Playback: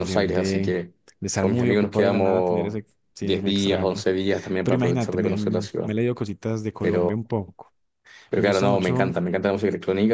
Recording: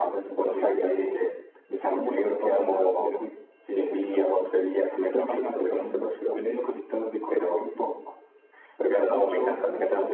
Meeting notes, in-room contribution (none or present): present